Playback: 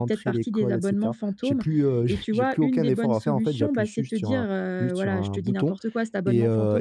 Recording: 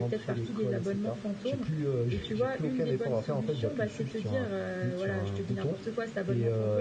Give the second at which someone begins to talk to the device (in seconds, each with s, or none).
none